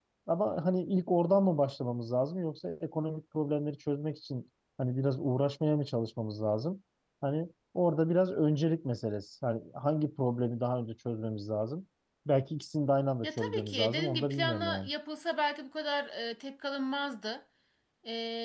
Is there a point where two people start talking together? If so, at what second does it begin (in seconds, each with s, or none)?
13.2 s